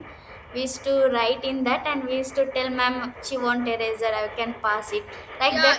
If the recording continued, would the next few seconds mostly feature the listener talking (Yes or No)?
Yes